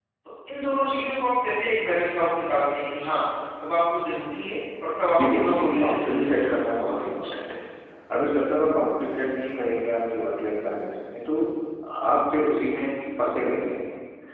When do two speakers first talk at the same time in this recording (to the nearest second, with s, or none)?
5 s